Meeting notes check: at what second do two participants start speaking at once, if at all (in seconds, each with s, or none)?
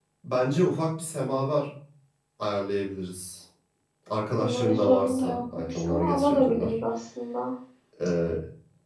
4.4 s